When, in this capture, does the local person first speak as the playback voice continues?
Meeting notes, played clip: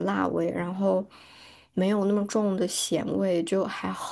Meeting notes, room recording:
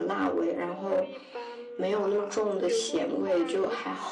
0.6 s

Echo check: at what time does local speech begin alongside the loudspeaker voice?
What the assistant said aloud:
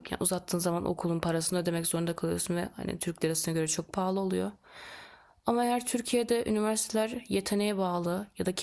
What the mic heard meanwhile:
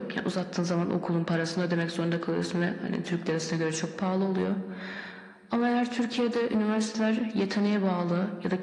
none

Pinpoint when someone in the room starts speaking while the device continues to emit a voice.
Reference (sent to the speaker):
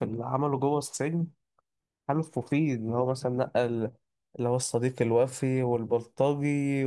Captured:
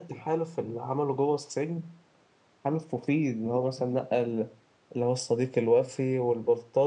none

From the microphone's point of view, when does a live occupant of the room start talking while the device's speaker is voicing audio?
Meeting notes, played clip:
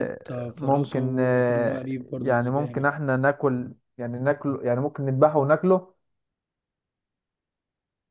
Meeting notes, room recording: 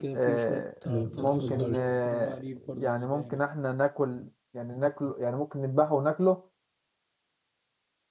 0.8 s

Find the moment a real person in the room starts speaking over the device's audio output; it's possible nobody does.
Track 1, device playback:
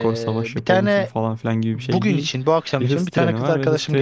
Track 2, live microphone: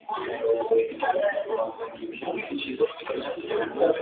none

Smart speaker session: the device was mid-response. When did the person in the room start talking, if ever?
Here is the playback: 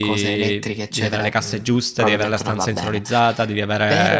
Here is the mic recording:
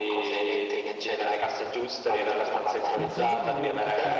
2.9 s

